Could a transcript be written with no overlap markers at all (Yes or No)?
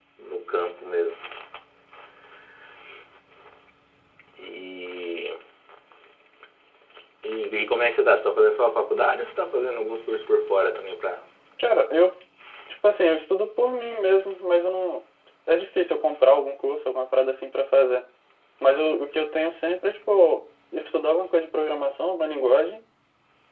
Yes